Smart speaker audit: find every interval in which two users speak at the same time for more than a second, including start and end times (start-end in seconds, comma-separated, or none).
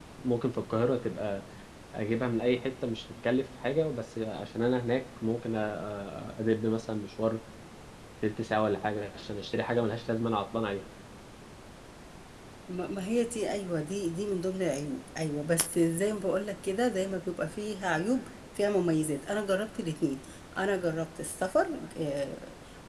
none